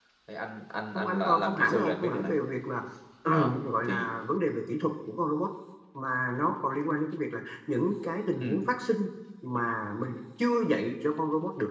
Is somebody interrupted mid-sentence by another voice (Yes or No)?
Yes